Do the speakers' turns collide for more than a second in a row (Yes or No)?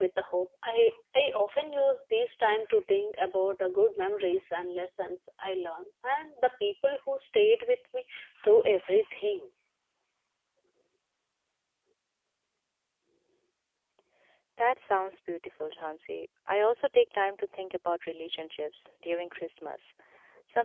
No